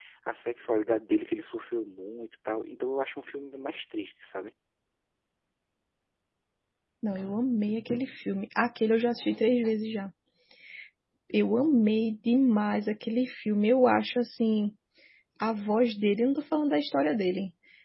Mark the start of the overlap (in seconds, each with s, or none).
none